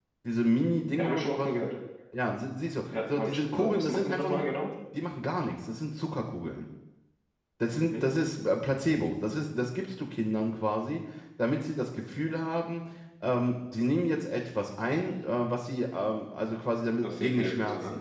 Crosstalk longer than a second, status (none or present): present